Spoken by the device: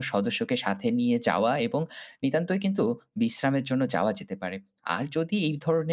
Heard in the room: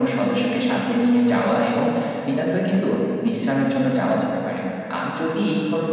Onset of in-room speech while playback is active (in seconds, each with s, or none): none